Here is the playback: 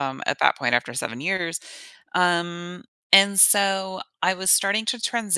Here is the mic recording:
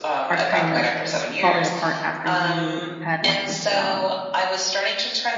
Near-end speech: present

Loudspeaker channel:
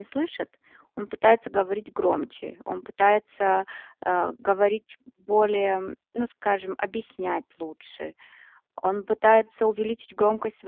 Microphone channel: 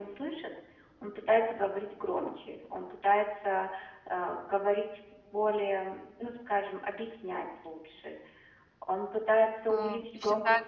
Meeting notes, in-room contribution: present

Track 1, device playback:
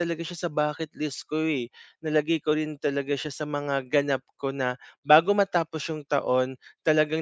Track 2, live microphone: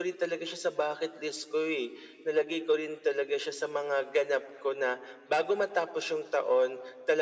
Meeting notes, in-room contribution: none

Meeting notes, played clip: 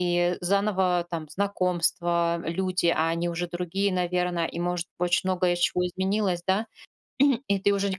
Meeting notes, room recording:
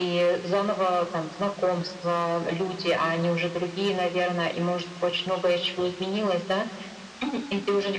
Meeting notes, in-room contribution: none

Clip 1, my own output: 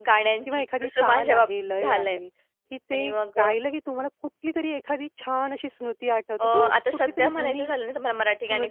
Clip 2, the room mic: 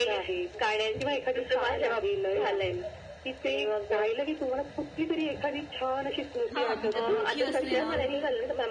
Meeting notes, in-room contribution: present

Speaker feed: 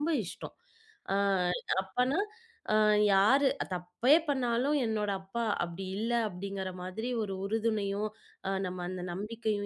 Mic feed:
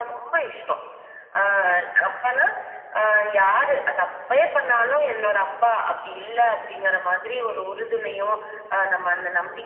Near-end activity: none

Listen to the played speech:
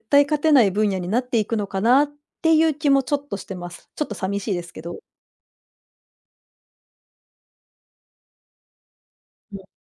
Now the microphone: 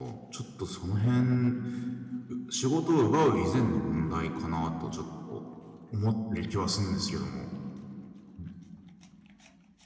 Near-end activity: present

